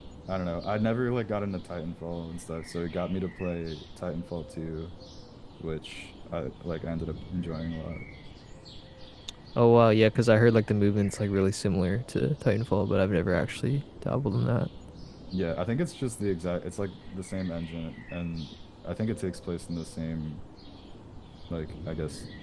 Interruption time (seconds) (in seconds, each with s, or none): none